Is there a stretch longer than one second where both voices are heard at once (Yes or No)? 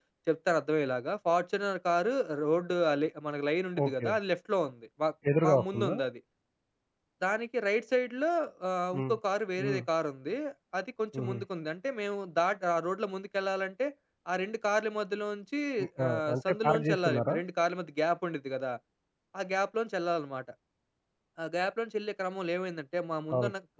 Yes